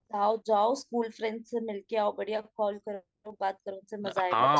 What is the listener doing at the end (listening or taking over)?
taking over